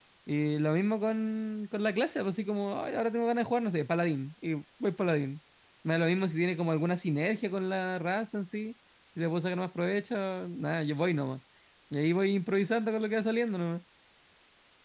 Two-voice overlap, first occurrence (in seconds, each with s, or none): none